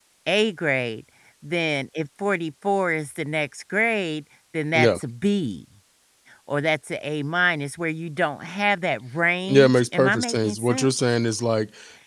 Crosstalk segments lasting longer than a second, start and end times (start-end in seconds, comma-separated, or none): 9.5-10.9